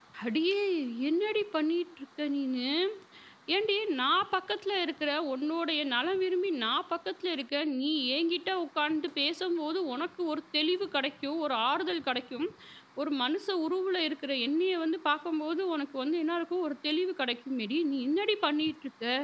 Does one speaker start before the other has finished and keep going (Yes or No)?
No